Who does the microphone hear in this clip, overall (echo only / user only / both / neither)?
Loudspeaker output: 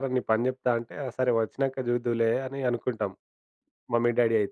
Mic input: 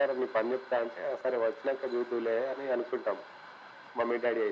echo only